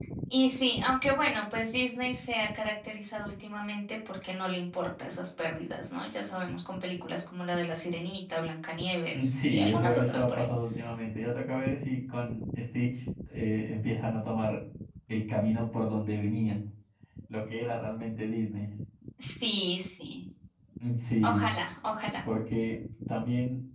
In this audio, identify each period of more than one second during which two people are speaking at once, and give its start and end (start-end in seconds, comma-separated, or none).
9.1-10.4